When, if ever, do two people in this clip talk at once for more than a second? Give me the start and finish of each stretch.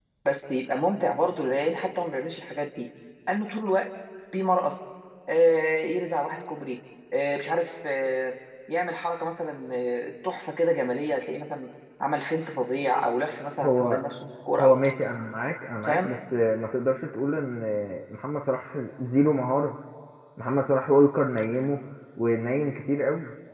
none

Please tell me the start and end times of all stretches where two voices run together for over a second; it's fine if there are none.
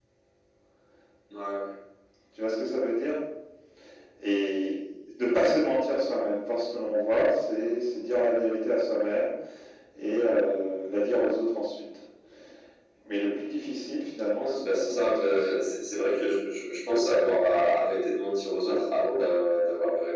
14.3-15.7

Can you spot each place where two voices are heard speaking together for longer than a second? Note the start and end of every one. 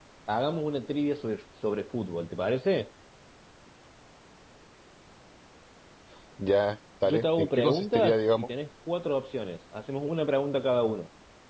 7.0-8.5

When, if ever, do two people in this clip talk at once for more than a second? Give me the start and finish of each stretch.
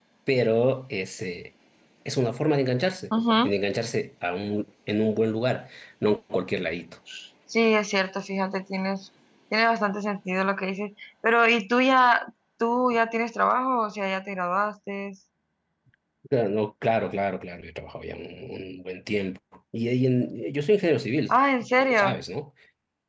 none

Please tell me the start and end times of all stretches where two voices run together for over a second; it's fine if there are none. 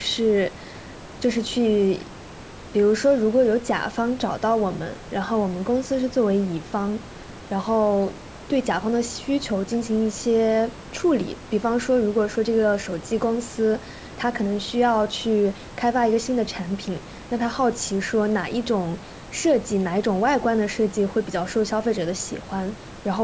none

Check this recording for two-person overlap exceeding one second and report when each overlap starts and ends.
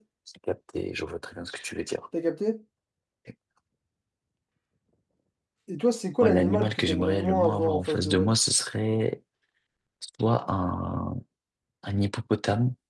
6.2-8.3

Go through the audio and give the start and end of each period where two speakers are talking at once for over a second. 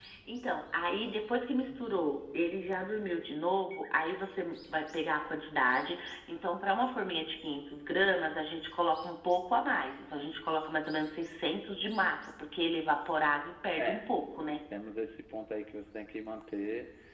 none

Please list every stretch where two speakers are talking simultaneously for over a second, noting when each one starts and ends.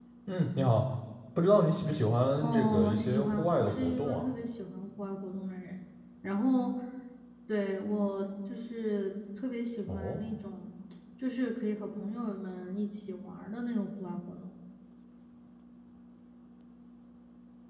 2.4-4.2

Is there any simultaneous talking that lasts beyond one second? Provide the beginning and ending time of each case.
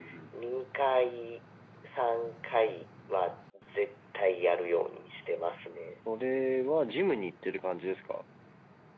none

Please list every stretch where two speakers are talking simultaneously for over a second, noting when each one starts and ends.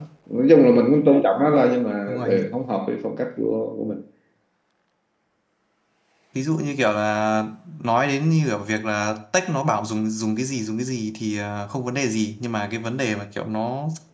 none

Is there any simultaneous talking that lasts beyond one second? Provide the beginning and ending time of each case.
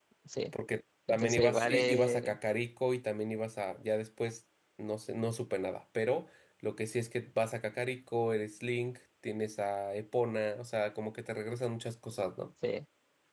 1.1-2.4

